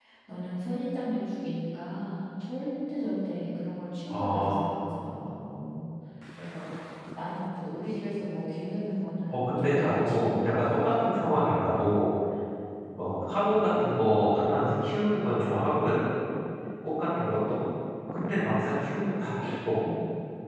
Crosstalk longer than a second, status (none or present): present